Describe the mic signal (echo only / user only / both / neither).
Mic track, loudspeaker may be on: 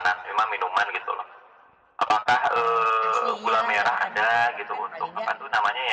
both